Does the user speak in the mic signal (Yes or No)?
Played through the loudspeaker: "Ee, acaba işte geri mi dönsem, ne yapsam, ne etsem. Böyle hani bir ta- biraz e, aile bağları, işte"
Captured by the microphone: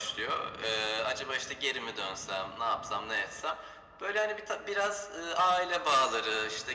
No